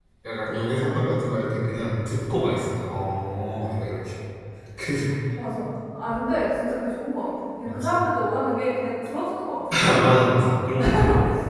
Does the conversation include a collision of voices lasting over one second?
No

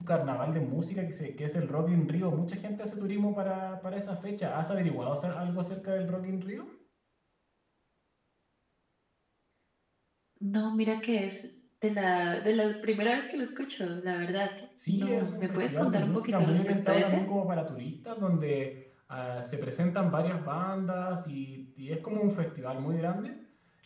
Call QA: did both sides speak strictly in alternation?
No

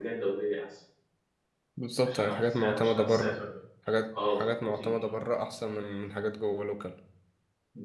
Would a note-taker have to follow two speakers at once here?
Yes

